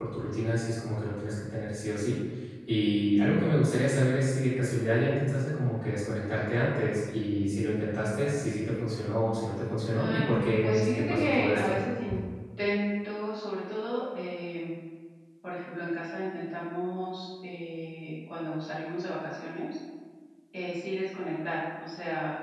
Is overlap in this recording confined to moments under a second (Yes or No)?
No